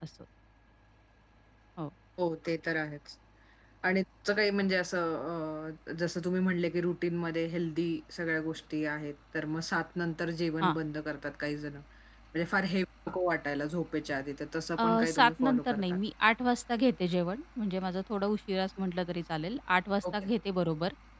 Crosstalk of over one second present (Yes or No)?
Yes